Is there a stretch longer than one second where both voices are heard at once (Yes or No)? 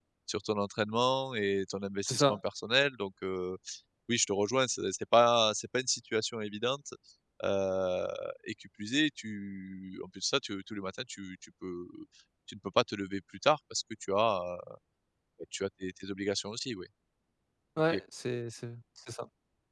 No